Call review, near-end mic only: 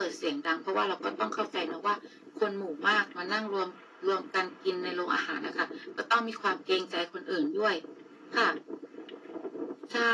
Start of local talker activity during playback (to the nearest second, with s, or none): none